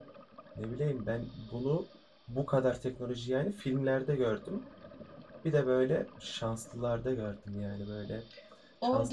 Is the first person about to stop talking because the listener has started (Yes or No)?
Yes